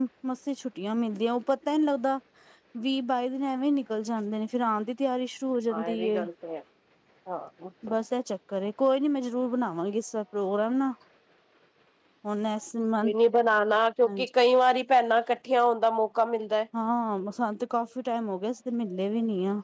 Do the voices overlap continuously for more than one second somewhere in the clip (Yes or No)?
No